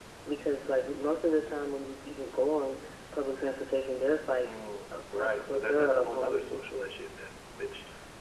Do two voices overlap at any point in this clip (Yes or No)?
Yes